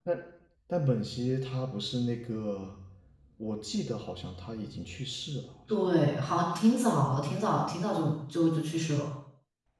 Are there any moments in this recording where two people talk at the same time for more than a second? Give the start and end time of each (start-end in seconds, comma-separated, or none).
none